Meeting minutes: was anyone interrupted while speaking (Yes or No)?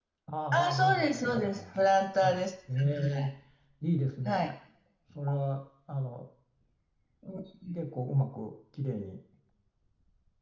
Yes